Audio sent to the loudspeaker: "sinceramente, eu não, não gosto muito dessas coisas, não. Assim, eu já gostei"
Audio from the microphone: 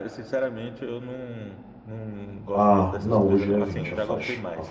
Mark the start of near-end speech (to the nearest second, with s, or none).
3 s